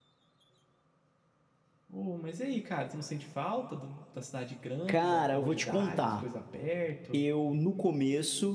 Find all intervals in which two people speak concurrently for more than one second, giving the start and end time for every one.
4.9-6.2

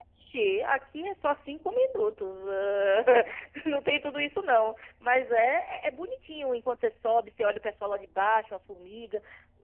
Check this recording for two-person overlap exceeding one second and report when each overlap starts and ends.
none

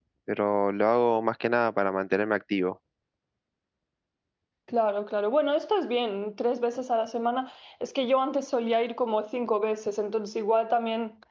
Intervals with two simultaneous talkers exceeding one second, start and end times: none

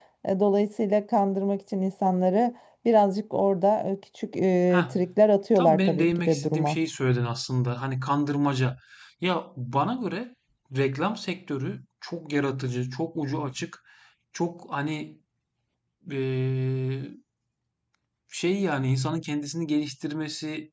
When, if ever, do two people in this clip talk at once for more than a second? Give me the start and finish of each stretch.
5.5-6.8

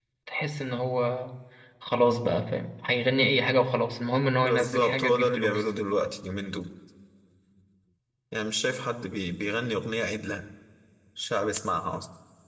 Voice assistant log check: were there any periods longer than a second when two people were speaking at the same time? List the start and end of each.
4.4-5.7

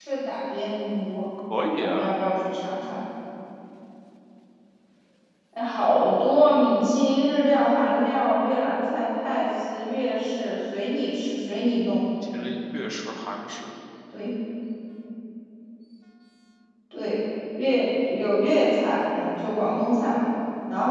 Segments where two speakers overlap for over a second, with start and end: none

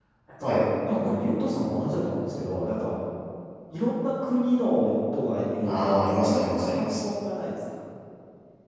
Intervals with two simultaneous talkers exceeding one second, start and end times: 5.7-7.0

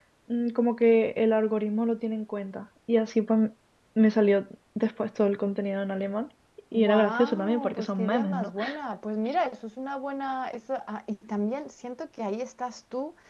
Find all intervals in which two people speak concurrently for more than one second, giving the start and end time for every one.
6.7-8.5

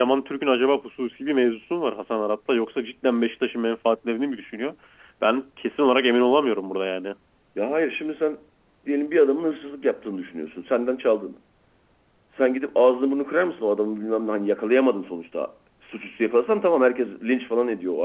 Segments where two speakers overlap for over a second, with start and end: none

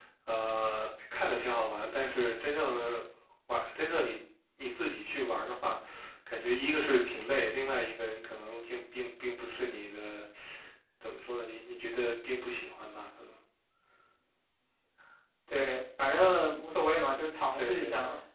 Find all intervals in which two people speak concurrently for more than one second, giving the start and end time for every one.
none

